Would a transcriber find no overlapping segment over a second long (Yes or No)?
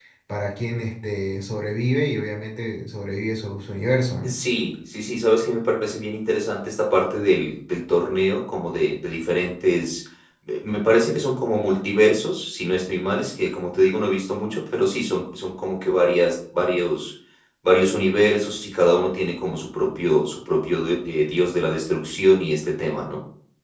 Yes